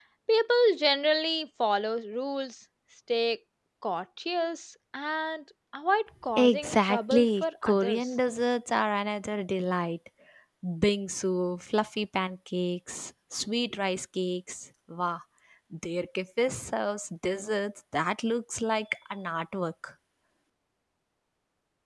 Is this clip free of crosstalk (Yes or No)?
No